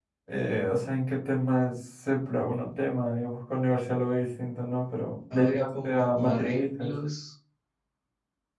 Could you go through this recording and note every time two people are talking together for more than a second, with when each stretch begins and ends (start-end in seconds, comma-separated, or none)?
5.3-6.9